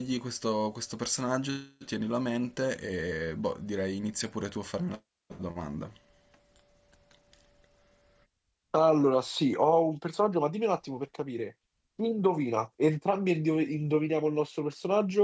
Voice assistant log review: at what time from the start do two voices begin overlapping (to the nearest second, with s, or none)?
none